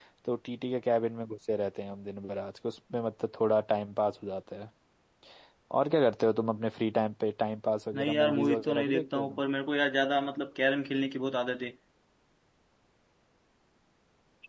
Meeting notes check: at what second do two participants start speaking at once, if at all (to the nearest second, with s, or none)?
8 s